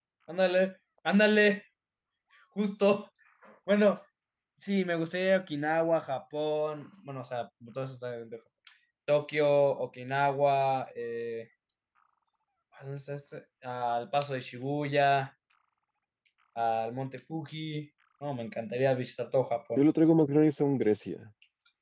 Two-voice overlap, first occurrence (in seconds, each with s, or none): none